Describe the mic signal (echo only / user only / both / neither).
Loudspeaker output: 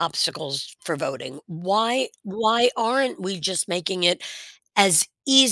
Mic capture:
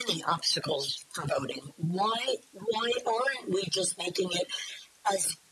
echo only